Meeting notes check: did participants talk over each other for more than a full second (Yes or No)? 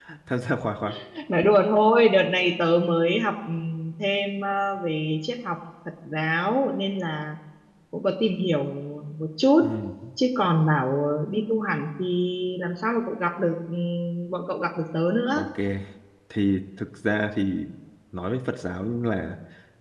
No